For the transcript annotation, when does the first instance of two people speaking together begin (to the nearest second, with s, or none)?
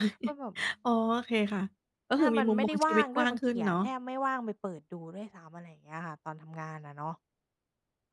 2 s